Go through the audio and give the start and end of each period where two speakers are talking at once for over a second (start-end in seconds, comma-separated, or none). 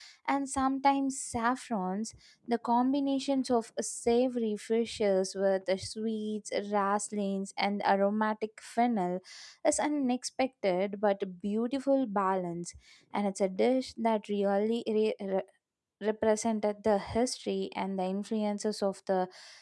none